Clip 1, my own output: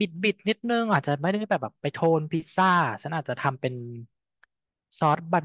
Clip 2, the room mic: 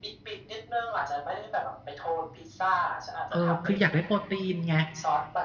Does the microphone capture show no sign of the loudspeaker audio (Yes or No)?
No